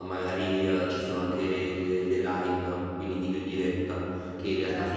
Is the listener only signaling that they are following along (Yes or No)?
Yes